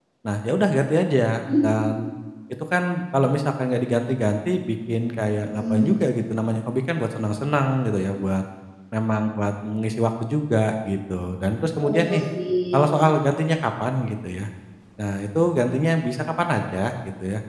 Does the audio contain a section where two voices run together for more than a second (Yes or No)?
No